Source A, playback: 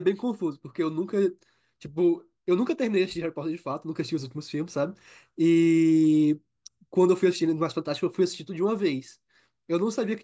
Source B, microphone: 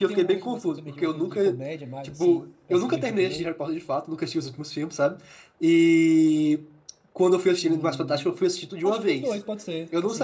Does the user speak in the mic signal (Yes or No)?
Yes